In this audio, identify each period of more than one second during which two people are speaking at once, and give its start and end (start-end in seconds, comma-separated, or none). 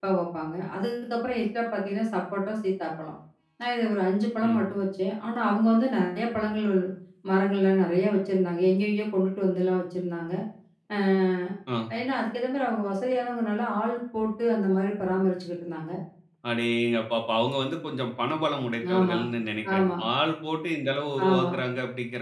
none